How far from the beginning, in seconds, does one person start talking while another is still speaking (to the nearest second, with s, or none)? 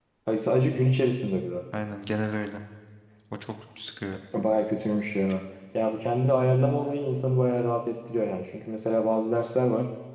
none